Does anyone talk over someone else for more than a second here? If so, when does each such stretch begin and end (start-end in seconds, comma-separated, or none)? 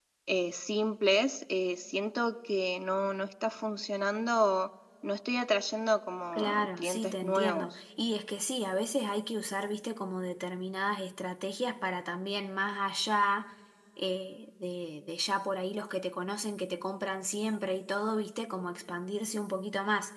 6.3-7.7